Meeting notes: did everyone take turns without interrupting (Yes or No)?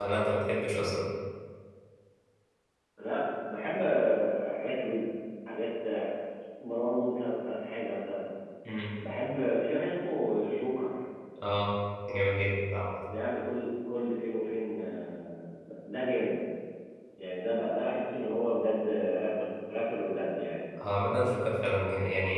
Yes